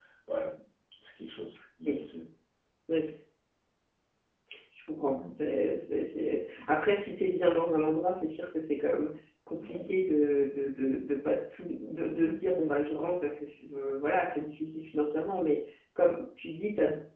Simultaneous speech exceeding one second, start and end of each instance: none

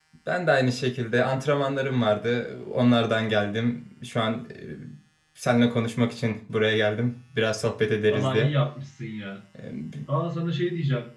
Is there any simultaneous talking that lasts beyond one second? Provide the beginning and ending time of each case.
none

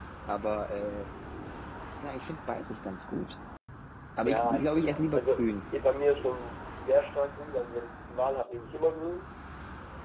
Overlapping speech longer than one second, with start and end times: 4.2-5.4

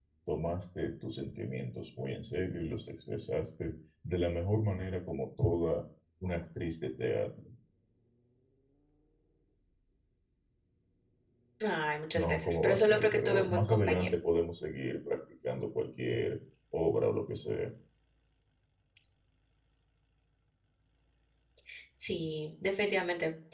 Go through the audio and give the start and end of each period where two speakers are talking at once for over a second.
12.2-14.1

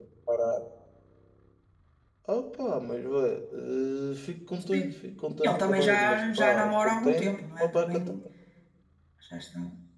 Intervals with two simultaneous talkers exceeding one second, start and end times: 5.4-8.0

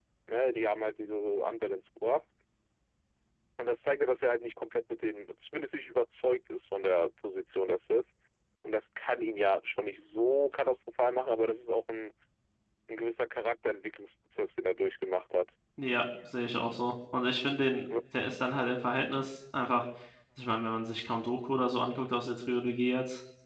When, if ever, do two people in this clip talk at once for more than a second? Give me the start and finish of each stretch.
none

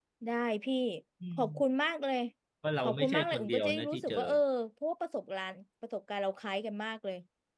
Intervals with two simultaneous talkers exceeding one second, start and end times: 2.8-4.2

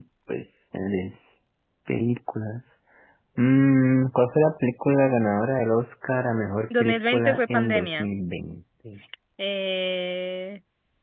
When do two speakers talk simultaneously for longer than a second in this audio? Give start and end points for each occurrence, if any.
6.8-8.1

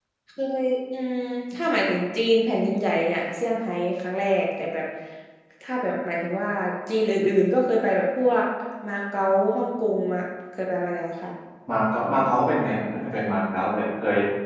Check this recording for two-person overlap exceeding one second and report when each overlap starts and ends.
none

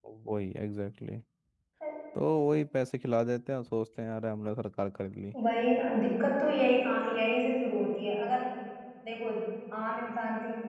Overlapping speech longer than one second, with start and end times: none

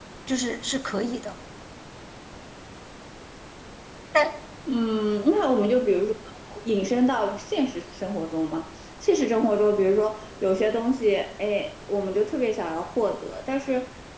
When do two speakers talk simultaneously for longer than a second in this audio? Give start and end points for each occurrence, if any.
none

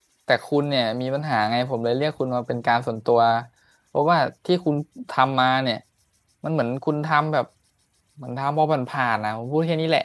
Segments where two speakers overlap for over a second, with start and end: none

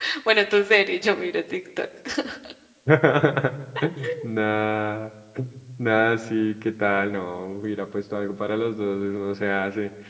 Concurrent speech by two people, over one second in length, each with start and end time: none

